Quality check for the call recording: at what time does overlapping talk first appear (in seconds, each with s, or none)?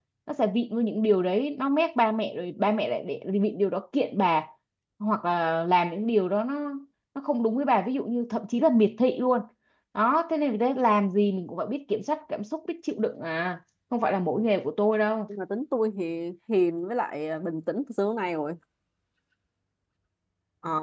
none